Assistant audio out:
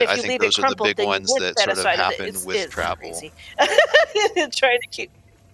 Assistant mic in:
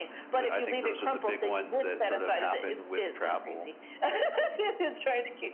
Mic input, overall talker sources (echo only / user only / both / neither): echo only